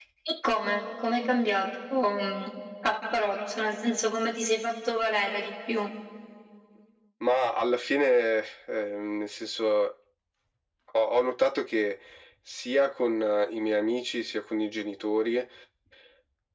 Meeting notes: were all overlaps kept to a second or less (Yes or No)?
Yes